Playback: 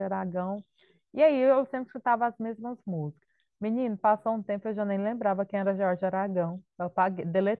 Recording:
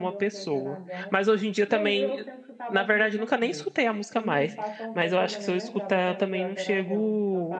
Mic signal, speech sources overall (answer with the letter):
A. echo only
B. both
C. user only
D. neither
B